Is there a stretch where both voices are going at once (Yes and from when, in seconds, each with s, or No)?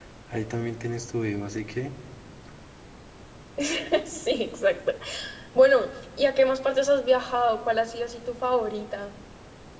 No